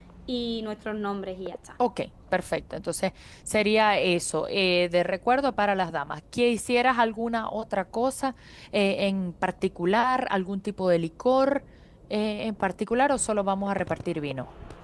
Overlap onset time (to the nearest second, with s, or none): none